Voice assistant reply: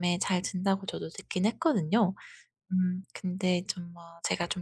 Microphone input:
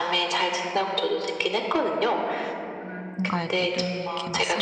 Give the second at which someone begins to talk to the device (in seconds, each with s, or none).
3.1 s